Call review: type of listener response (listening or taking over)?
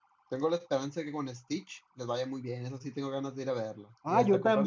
taking over